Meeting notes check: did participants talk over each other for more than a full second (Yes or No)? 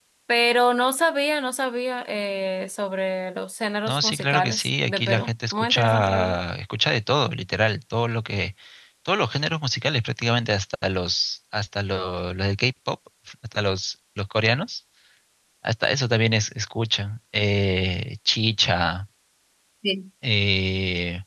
Yes